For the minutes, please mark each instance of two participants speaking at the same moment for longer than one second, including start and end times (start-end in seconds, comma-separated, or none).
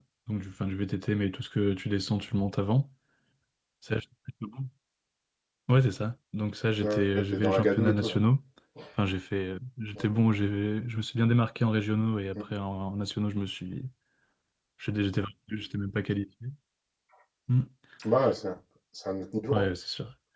6.8-8.2